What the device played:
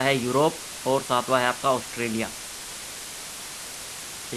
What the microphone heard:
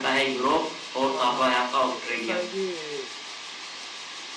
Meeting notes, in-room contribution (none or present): present